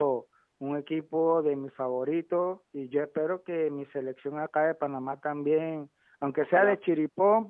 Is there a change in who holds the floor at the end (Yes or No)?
No